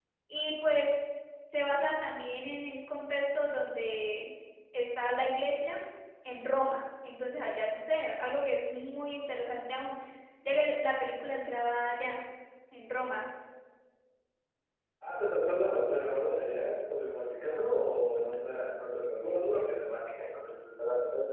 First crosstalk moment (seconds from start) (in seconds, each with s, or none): none